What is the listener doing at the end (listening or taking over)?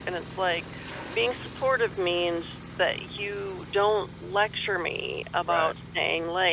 listening